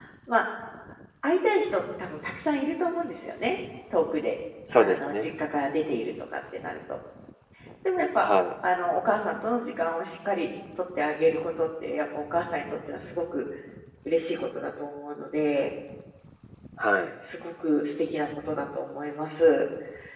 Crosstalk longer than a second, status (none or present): none